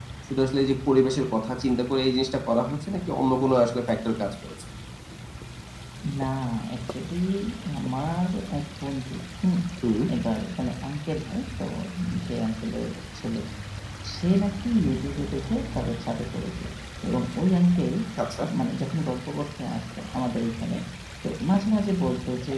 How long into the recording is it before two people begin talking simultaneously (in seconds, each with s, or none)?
none